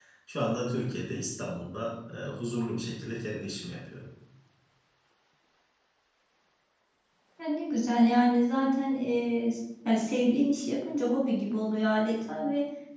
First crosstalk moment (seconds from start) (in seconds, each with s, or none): none